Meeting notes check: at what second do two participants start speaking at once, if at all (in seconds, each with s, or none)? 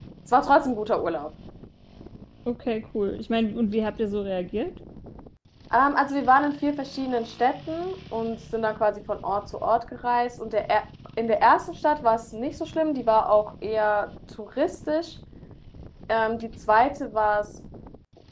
none